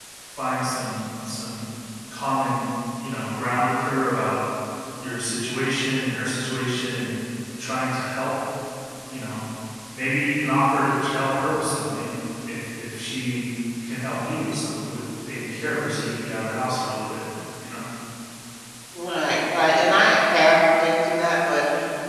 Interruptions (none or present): none